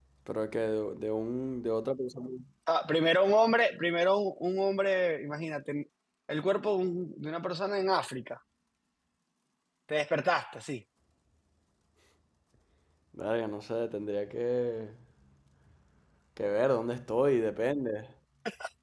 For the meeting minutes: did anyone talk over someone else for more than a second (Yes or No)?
No